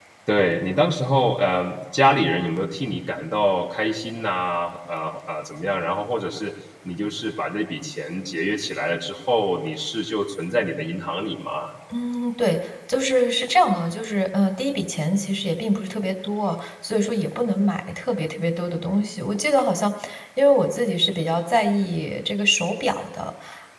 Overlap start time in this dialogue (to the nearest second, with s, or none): none